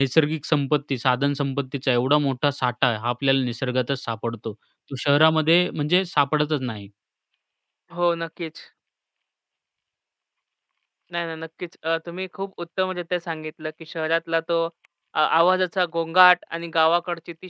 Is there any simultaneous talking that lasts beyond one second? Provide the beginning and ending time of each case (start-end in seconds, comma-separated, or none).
none